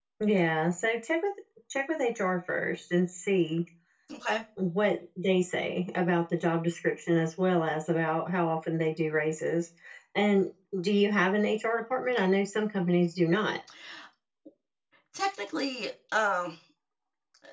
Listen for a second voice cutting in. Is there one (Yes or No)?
No